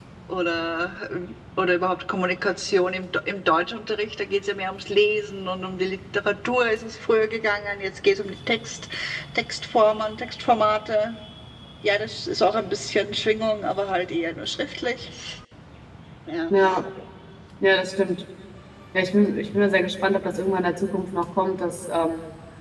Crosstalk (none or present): none